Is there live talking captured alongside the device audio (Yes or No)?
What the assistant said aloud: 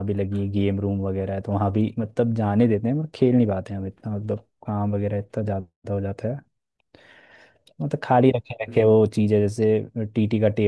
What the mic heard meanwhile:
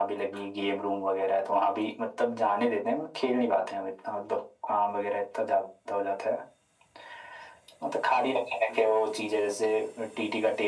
No